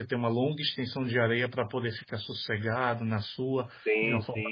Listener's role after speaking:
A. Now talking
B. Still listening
B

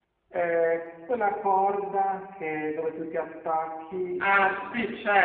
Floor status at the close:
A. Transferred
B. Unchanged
A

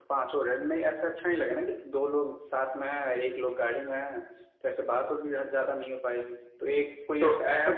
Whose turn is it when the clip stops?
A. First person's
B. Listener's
B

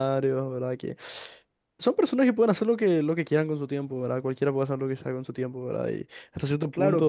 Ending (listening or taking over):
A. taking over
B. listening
A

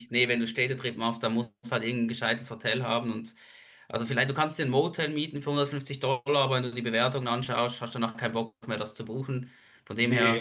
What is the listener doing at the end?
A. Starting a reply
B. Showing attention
A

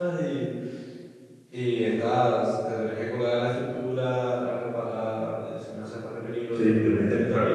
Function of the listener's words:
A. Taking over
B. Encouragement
A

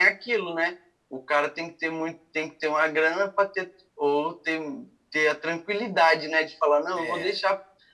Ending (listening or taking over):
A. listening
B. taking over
A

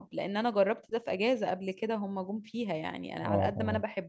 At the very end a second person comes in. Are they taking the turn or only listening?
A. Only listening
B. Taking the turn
A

